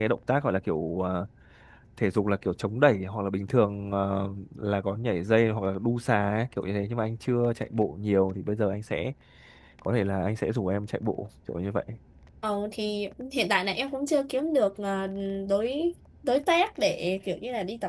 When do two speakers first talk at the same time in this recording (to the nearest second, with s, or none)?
none